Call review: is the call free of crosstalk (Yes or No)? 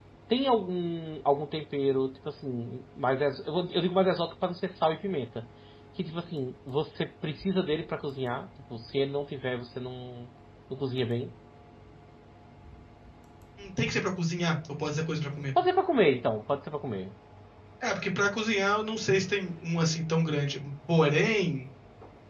Yes